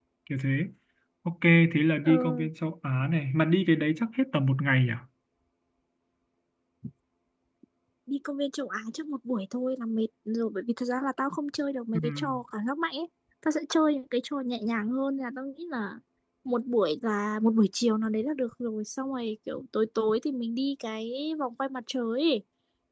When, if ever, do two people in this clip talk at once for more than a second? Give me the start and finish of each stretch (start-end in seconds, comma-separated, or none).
none